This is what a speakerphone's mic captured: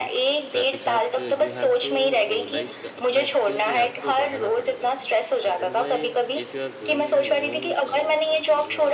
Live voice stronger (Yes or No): No